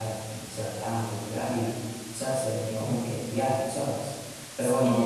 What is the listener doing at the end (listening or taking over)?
listening